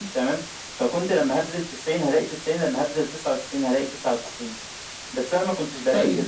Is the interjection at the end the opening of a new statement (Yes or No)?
Yes